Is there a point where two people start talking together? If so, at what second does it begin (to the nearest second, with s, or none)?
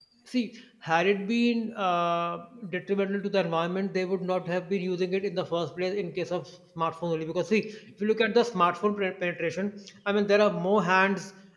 none